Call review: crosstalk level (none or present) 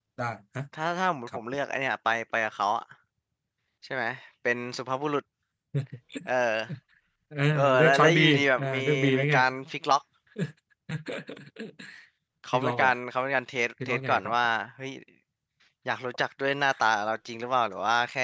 present